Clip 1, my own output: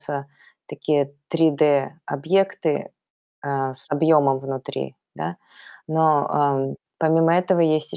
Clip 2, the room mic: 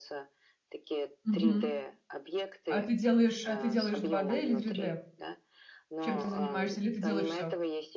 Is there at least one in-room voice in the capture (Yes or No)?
Yes